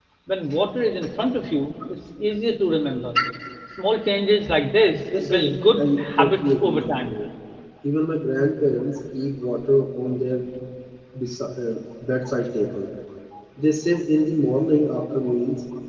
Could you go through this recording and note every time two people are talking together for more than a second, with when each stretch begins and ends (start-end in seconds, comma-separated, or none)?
5.2-7.2